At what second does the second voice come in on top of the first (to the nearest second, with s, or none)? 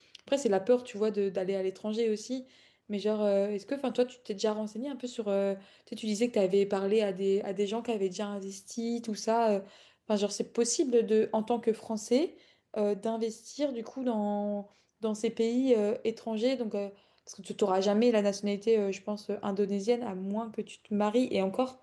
none